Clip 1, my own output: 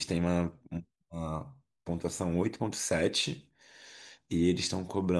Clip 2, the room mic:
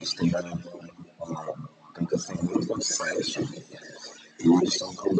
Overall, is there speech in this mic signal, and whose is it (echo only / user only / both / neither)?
echo only